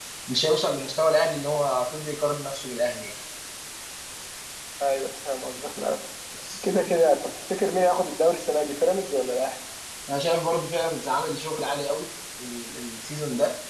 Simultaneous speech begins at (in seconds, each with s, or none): none